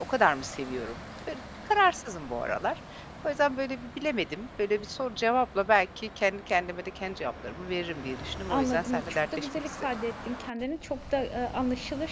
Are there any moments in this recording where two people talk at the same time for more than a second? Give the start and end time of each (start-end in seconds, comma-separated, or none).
8.5-9.8